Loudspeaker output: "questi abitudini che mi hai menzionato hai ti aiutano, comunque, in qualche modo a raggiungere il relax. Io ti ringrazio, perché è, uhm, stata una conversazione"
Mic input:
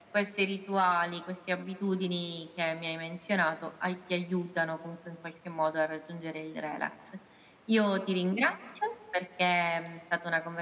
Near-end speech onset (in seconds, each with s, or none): none